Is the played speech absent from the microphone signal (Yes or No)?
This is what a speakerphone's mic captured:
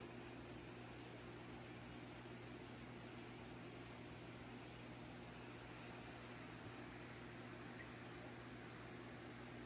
Yes